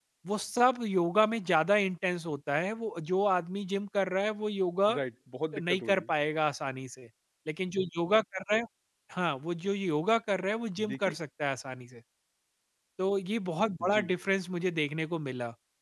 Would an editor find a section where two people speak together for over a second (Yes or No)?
No